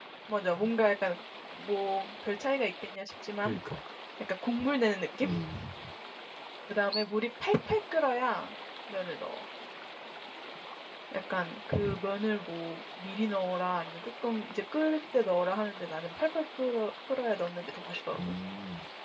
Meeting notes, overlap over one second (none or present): none